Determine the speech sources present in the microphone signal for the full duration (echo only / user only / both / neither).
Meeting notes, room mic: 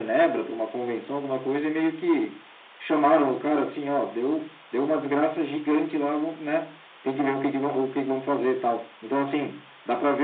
echo only